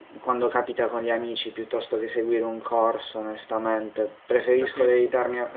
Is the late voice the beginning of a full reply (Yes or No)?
No